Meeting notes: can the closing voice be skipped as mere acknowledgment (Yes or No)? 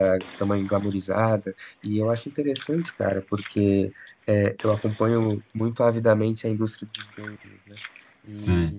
No